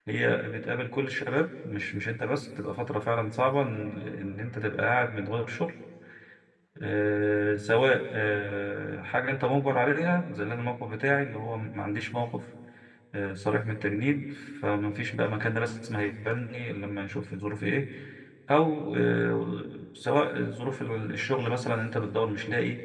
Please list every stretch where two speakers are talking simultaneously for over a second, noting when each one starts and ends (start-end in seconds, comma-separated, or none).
none